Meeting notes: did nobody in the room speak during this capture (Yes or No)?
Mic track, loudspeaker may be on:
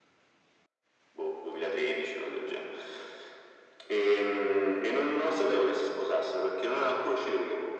Yes